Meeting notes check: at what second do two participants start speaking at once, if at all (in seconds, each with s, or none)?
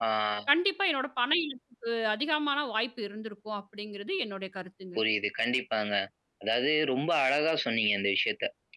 none